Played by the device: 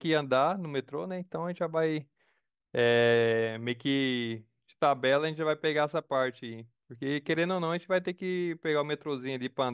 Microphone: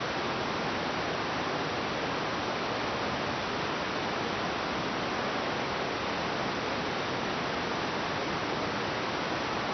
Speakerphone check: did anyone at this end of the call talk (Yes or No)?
No